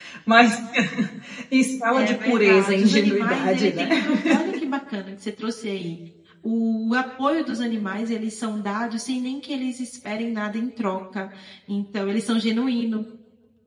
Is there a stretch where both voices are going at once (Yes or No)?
Yes